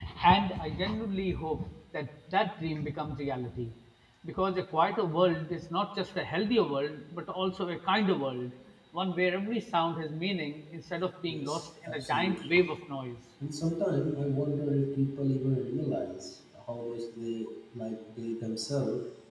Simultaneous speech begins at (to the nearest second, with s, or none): 11 s